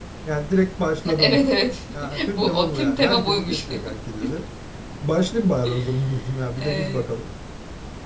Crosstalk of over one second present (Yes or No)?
Yes